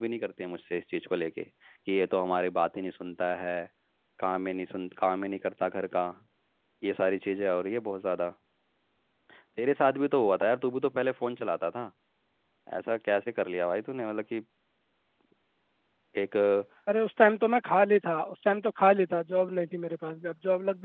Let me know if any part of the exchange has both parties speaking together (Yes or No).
No